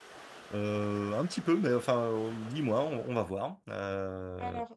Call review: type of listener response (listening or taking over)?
taking over